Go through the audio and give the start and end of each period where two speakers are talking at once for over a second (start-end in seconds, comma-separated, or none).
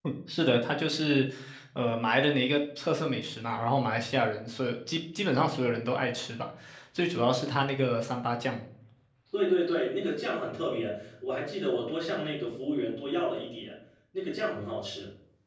none